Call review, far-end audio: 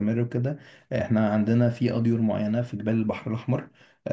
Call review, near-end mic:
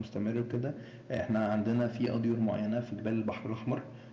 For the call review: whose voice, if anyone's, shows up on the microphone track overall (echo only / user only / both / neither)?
echo only